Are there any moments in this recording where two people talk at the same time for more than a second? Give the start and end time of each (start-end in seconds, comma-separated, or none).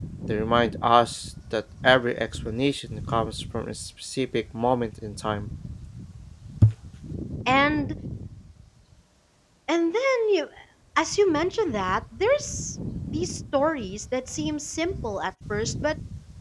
none